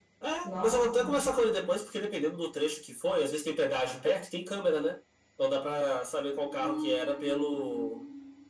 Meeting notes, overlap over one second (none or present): present